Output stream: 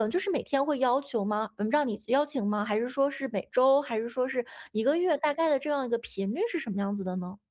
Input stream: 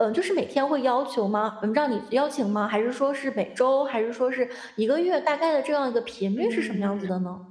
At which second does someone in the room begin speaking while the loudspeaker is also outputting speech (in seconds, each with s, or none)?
6.4 s